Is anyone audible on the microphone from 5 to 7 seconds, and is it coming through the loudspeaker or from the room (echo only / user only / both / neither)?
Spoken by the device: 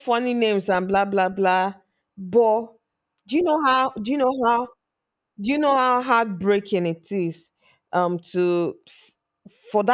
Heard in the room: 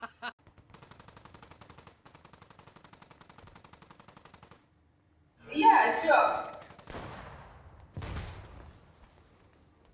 user only